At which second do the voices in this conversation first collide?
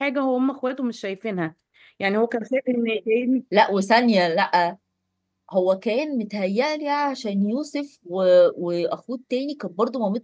none

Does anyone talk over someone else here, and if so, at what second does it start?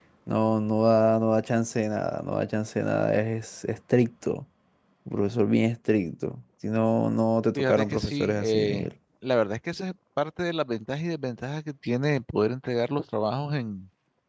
7.5 s

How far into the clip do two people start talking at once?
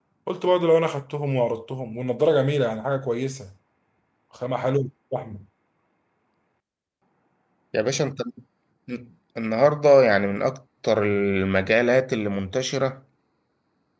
none

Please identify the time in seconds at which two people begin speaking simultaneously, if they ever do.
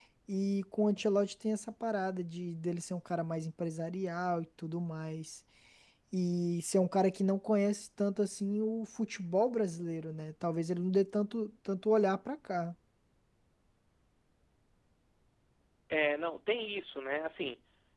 none

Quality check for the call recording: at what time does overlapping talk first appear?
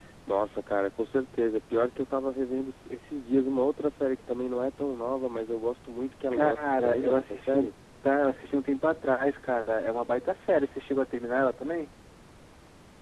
6.3 s

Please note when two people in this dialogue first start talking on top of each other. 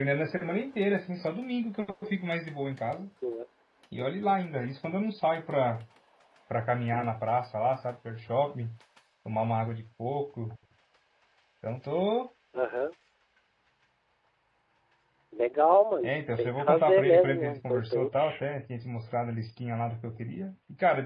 16.0 s

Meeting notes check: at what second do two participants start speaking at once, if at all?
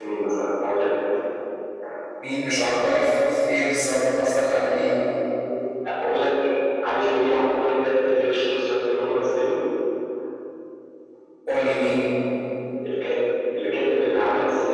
none

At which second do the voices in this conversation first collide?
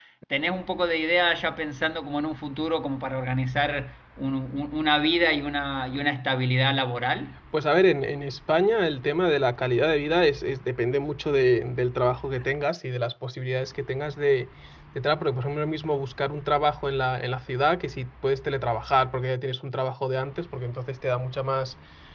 none

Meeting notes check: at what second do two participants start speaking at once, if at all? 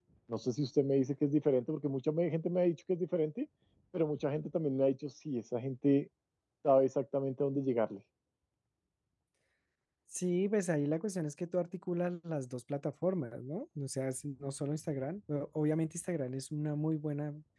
none

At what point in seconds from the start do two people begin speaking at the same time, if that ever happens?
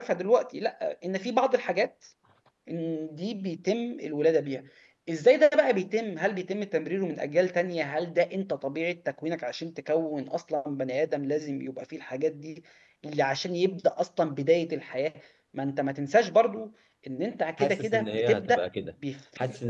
17.6 s

